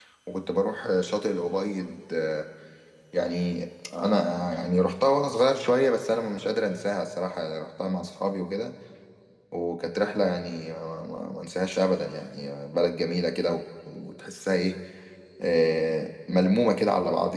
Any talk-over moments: No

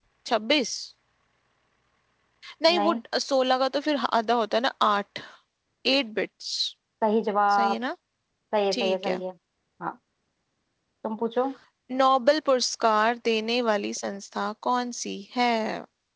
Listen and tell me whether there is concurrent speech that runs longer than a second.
No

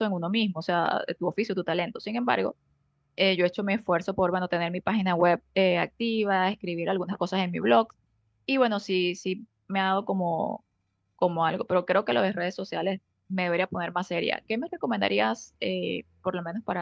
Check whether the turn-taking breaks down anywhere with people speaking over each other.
No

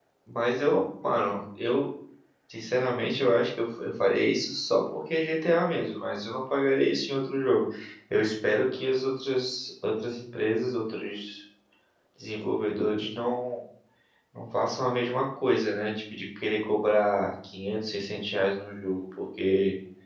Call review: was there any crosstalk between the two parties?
No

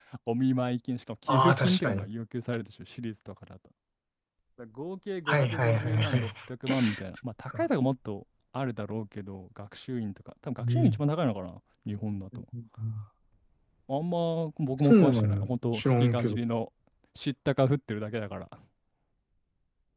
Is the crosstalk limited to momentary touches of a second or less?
No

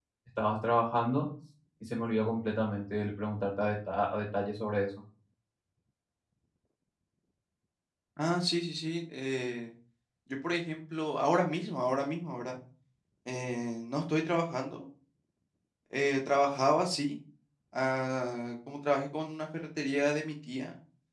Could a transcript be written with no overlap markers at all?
Yes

